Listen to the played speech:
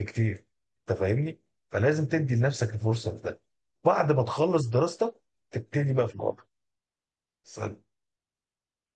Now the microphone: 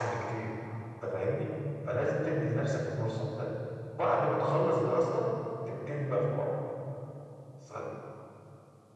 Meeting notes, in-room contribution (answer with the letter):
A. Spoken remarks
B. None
B